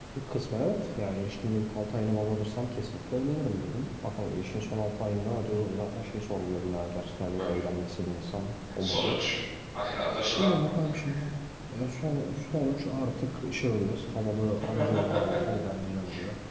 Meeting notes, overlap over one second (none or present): none